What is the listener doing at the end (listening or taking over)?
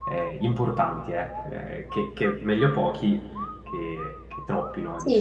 taking over